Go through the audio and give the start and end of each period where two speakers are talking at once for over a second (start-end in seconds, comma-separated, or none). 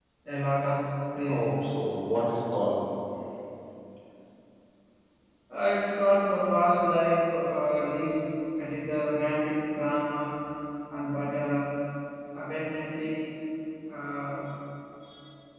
none